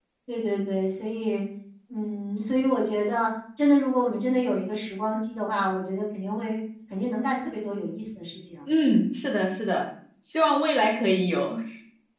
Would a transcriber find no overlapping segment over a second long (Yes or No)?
Yes